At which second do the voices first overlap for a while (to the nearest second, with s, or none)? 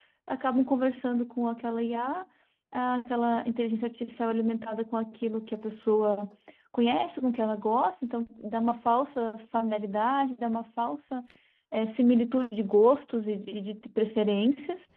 none